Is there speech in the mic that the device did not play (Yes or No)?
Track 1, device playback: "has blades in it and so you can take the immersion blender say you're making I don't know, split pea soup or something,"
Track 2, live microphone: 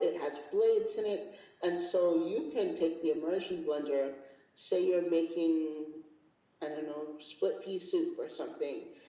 No